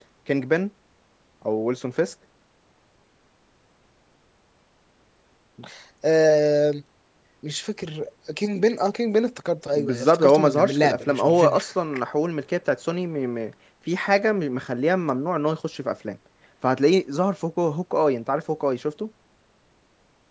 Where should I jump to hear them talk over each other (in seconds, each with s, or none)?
9.7 s